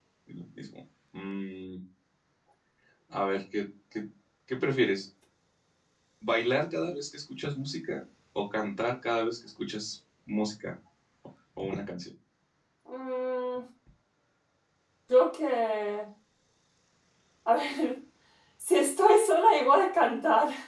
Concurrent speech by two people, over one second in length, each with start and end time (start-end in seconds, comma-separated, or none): none